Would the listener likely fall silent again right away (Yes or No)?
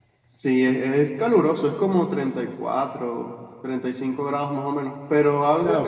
No